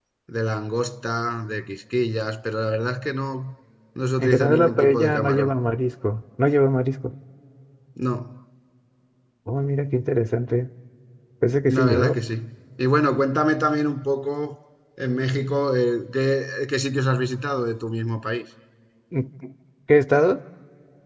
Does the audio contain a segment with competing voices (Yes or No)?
Yes